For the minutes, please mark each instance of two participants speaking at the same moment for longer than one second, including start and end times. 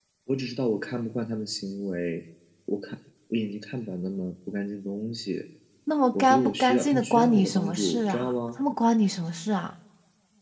6.1-8.6

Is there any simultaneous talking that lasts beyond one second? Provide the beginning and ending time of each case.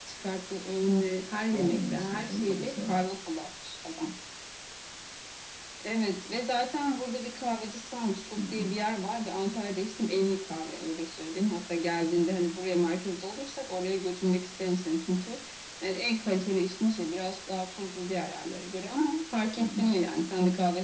1.5-3.0

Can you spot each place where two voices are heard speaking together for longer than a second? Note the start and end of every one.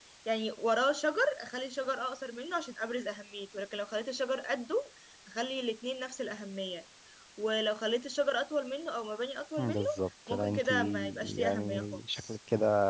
10.3-12.4

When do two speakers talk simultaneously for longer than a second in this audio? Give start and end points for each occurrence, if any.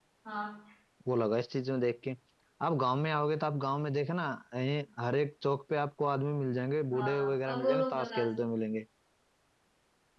6.9-8.2

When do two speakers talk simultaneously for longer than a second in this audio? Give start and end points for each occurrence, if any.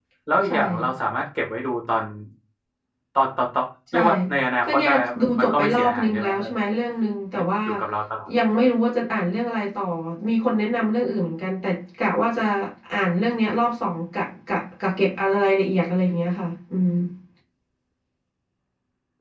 4.6-6.5

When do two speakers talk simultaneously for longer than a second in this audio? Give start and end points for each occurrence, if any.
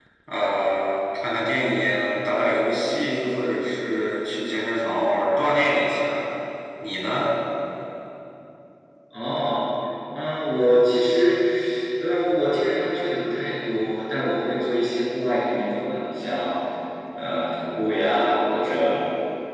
none

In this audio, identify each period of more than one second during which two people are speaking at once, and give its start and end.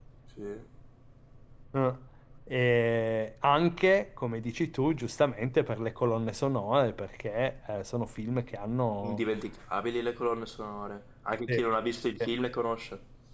none

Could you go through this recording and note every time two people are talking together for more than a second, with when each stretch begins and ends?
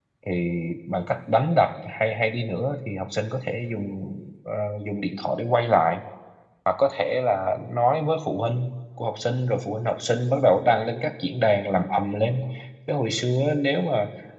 none

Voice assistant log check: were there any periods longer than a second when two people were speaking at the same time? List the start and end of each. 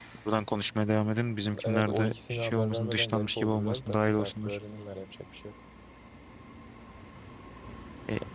1.6-4.6

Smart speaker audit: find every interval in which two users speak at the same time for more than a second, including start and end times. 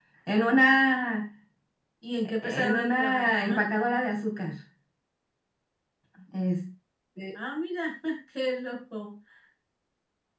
2.4-3.7

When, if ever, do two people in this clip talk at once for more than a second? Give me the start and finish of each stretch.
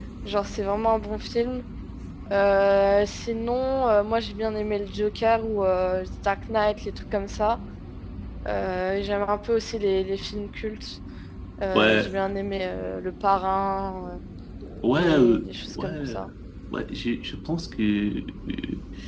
15.0-16.2

